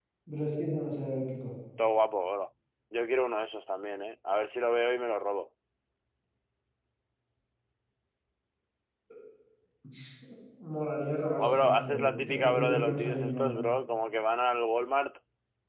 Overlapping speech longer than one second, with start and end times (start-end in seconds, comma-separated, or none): 11.4-13.6